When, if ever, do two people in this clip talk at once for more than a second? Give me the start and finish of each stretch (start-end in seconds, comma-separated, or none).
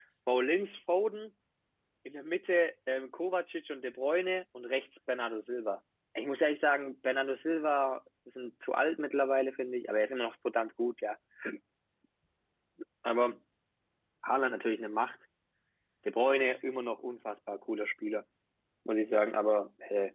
none